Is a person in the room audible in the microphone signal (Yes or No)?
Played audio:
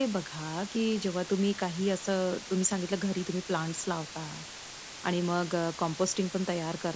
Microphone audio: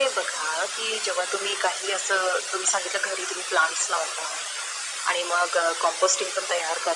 No